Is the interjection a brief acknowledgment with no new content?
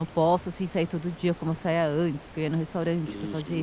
No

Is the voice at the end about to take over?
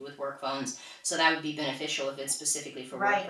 Yes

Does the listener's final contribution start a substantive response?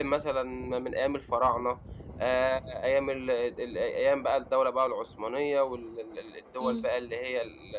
No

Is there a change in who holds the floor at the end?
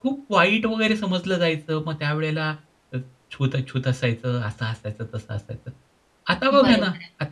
No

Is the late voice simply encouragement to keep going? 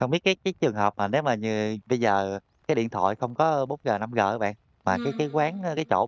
Yes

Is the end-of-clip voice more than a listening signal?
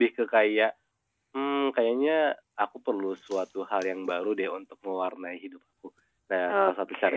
No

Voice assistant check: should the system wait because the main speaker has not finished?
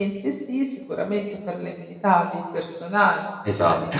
Yes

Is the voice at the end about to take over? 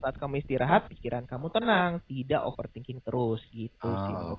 Yes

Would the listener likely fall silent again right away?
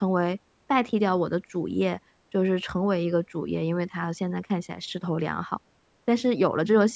Yes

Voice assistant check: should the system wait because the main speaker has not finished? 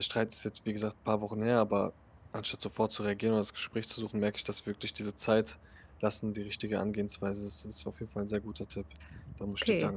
No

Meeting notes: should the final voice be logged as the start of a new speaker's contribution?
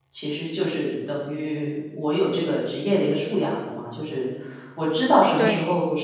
No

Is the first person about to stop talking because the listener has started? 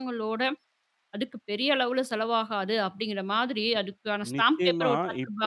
Yes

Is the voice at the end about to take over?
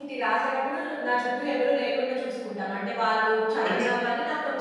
No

